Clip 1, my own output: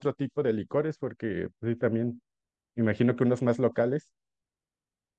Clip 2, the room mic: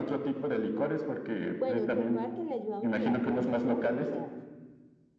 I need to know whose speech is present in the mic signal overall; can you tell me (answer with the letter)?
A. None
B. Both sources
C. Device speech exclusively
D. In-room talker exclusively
B